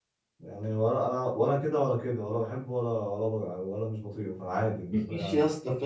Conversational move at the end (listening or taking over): taking over